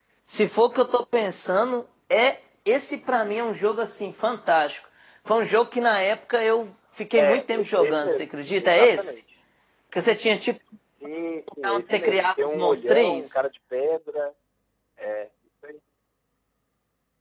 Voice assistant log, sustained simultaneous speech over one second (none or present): present